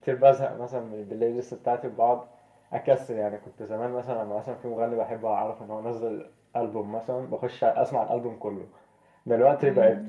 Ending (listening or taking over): listening